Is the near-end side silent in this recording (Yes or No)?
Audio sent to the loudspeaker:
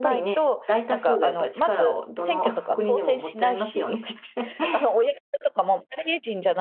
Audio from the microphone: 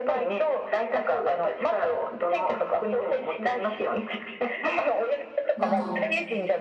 No